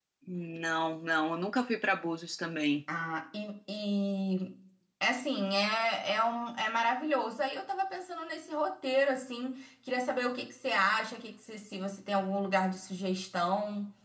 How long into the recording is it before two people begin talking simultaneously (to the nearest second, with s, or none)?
none